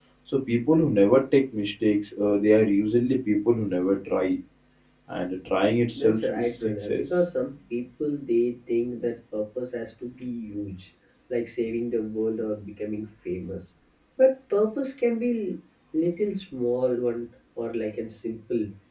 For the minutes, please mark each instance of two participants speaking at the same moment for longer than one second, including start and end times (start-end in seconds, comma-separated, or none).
6.0-7.2